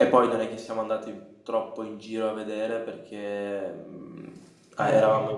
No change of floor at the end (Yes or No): Yes